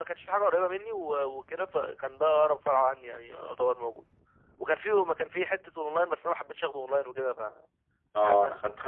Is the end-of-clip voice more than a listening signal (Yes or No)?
Yes